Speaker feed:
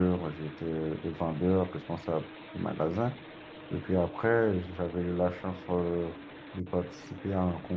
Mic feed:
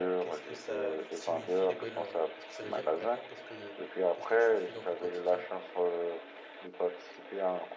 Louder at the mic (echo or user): echo